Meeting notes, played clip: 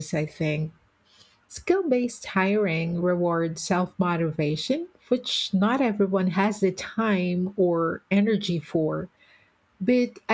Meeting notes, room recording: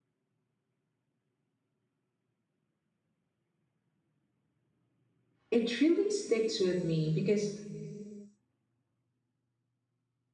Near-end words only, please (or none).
it really sticks with me because